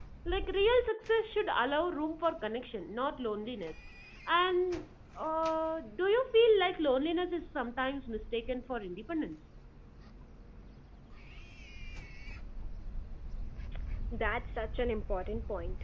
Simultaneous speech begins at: none

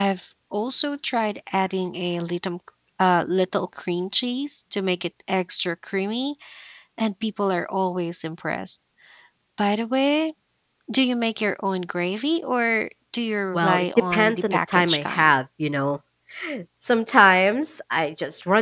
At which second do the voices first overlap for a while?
14 s

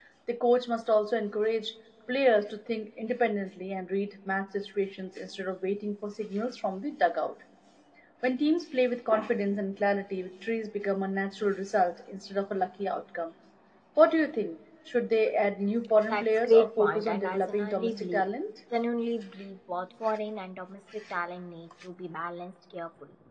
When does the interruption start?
16 s

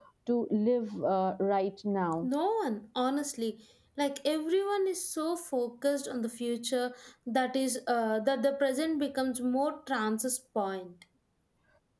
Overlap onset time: none

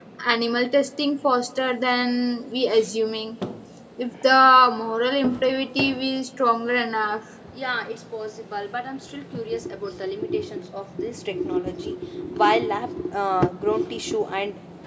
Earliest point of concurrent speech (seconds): none

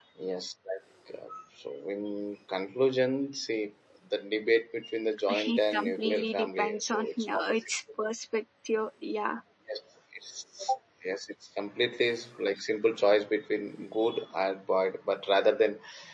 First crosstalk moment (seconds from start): 5 s

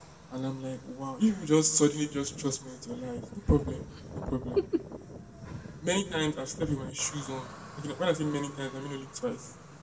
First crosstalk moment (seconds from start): none

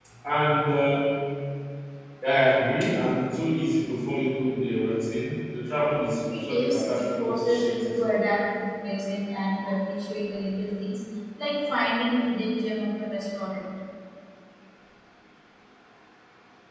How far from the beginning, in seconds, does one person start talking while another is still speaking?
6 s

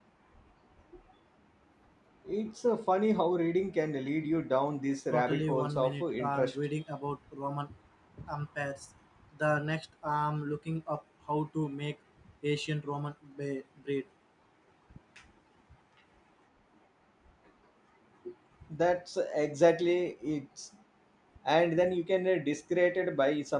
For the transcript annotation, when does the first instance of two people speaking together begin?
5 s

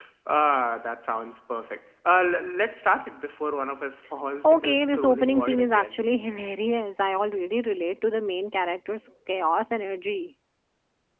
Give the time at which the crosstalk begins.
4 s

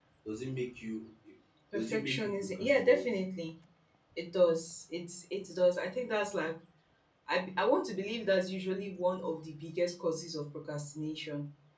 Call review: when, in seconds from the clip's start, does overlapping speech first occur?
2 s

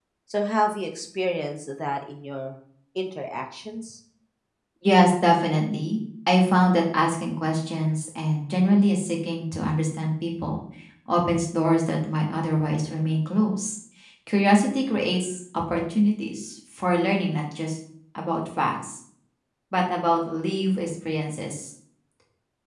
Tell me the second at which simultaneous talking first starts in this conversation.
none

